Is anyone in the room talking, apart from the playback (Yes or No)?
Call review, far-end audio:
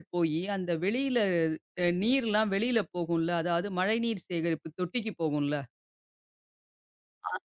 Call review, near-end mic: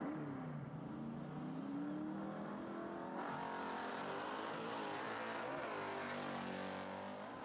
No